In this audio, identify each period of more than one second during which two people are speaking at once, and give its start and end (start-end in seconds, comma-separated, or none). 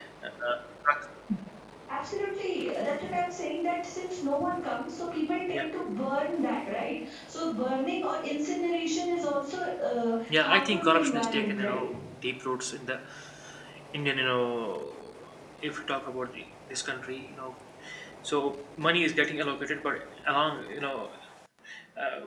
10.4-11.8